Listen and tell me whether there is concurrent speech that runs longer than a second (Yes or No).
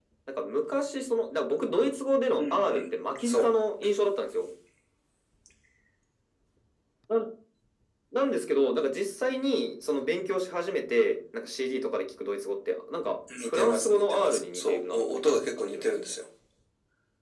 Yes